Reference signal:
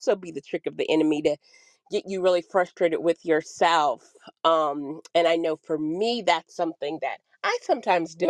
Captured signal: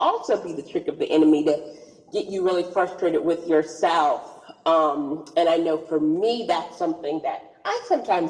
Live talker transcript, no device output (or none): none